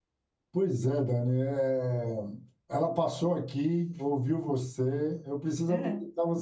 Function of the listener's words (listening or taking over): listening